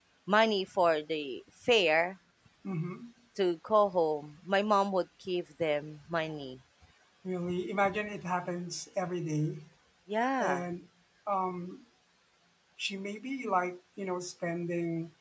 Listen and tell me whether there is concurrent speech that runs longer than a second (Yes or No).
No